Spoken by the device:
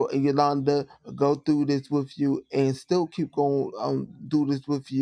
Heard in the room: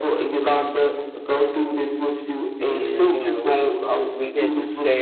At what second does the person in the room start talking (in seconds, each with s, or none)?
2.7 s